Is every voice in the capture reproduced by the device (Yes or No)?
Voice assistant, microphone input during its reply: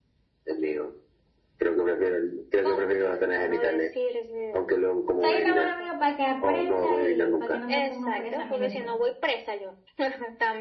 No